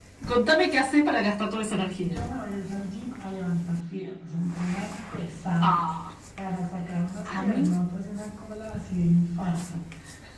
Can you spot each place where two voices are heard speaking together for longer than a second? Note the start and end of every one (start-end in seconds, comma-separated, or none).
none